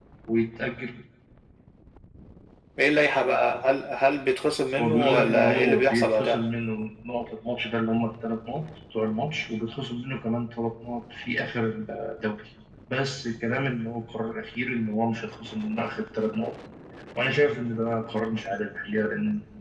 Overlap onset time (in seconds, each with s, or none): 4.8 s